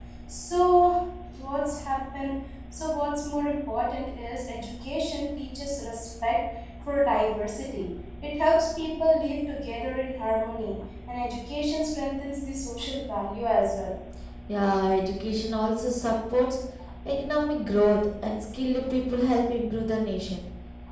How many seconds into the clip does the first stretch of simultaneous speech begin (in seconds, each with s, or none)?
none